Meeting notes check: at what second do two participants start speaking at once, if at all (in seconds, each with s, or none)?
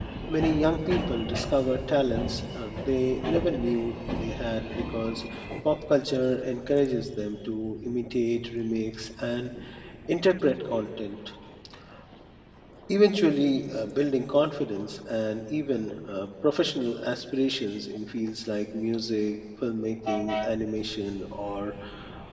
none